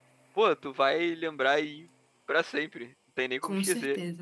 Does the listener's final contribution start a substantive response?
Yes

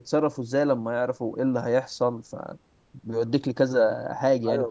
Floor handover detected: Yes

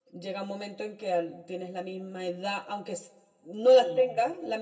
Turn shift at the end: No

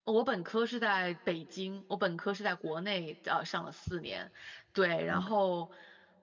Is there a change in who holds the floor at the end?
No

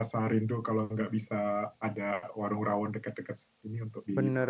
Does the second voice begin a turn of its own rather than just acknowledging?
Yes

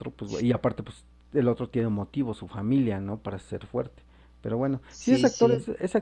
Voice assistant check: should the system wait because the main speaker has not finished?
Yes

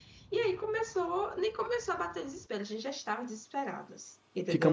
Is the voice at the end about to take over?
Yes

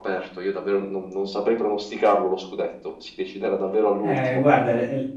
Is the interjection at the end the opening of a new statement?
Yes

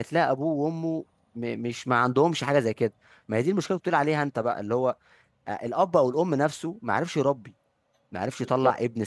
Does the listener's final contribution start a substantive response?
No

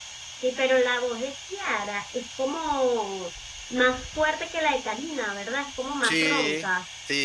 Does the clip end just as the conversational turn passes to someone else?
Yes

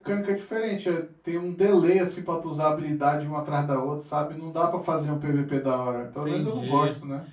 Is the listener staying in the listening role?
No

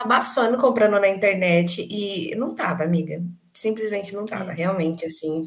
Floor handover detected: No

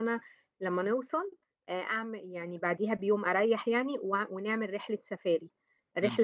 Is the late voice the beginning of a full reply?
No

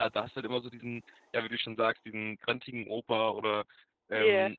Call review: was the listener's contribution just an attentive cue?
Yes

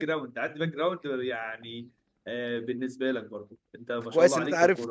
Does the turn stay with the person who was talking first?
No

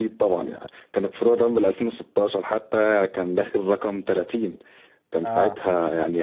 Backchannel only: Yes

